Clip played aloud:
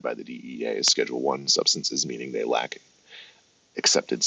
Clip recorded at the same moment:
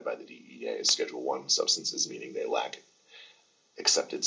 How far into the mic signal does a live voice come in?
none

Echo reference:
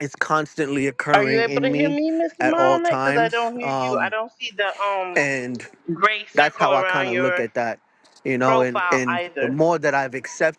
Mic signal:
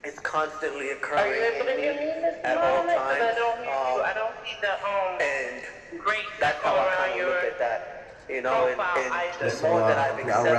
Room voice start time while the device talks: 9.4 s

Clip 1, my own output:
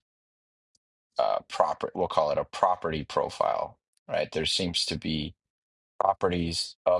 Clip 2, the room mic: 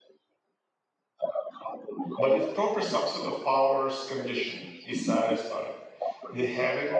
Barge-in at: 2.2 s

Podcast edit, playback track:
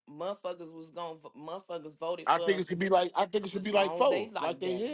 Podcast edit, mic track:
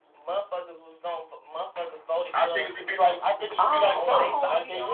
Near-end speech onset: 3.6 s

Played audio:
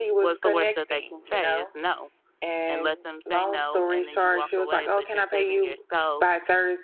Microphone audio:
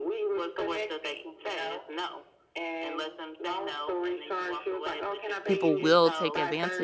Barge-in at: 5.4 s

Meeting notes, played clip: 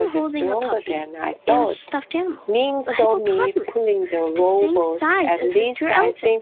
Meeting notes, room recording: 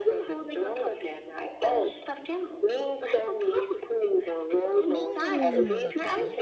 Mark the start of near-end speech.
4.8 s

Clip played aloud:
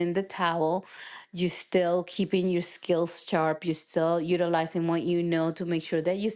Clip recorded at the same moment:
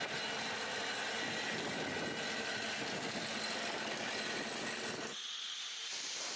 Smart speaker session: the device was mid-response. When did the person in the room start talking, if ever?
none

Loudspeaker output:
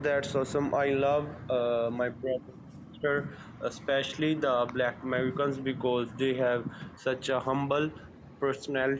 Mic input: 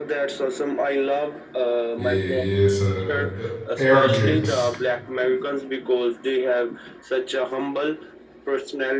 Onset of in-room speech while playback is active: 1.9 s

